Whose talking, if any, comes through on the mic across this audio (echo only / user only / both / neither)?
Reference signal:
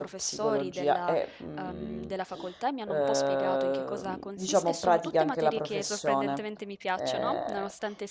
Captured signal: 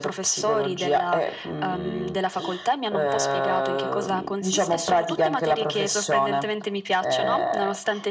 echo only